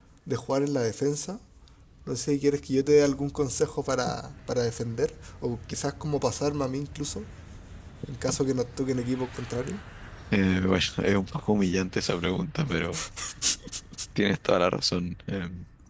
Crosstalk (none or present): none